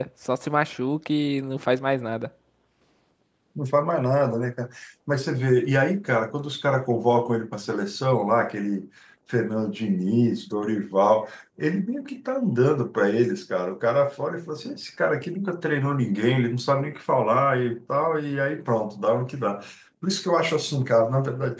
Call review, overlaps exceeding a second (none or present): none